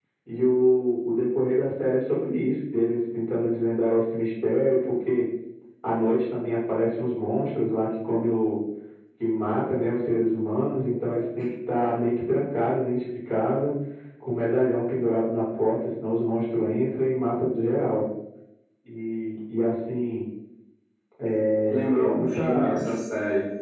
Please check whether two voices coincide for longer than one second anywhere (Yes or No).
Yes